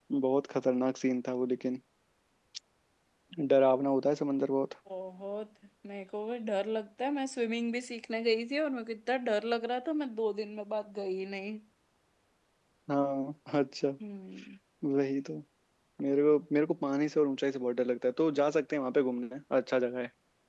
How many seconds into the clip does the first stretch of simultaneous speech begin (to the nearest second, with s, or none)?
none